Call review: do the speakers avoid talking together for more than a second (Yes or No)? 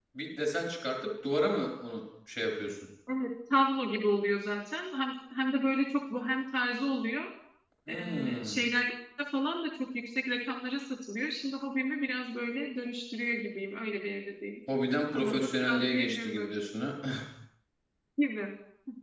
No